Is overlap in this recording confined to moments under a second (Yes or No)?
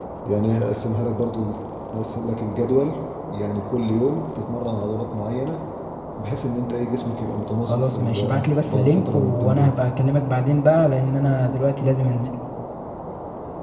No